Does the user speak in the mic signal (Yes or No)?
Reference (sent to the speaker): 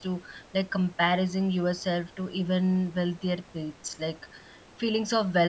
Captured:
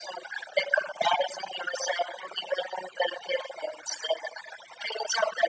No